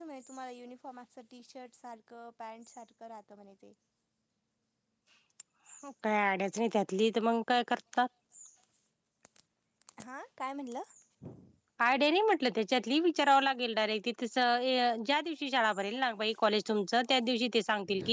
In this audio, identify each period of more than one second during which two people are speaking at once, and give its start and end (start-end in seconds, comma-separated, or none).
none